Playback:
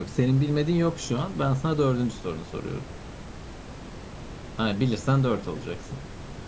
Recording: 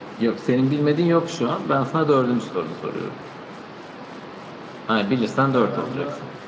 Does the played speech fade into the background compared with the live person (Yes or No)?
No